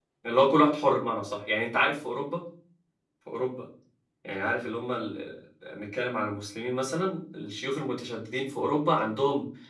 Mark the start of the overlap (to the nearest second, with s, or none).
none